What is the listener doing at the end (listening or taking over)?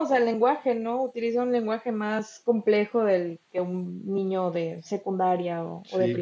taking over